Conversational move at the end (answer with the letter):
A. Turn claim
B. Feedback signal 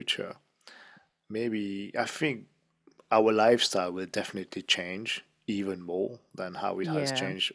B